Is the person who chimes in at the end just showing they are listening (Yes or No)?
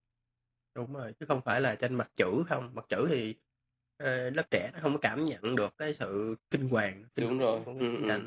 No